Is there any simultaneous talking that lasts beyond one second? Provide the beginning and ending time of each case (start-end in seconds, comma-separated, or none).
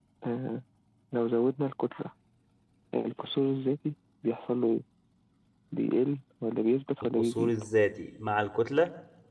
none